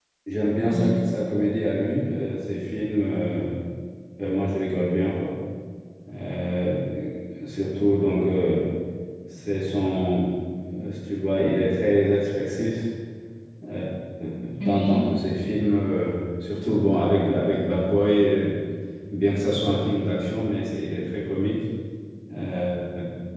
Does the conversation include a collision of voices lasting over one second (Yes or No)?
Yes